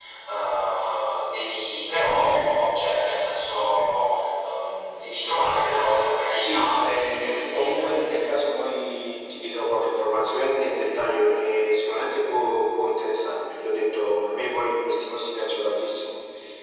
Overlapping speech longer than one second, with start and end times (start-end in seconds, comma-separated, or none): 6.4-7.9